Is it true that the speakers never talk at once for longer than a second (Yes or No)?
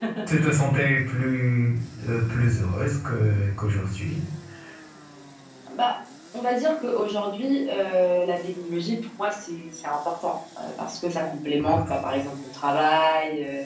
Yes